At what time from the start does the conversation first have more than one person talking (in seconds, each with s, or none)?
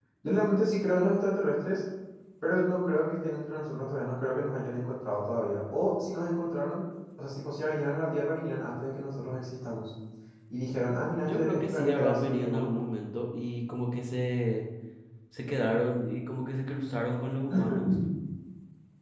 11.3 s